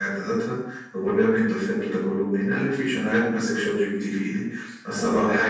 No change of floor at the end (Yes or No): Yes